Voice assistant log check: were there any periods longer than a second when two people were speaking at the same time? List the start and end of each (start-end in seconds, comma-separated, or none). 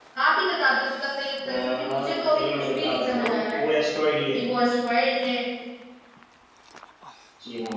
1.5-3.6